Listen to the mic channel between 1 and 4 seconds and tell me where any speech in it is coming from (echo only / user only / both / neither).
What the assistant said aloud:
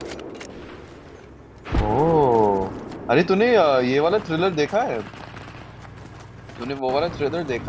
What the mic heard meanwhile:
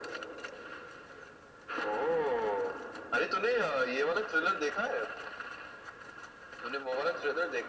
echo only